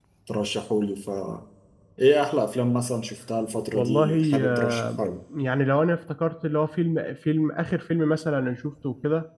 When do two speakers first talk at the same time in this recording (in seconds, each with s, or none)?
3.7 s